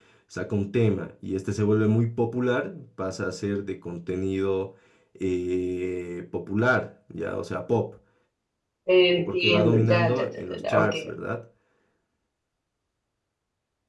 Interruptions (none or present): present